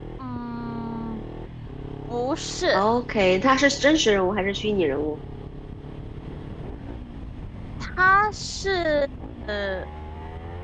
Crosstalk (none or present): none